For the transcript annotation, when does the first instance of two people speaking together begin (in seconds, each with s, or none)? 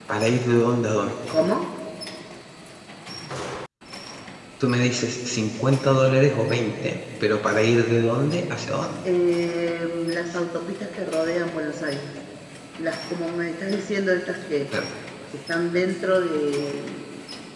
none